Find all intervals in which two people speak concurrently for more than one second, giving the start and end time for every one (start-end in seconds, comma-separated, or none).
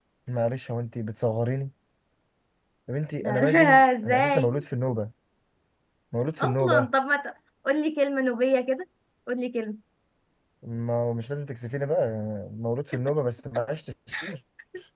3.2-4.6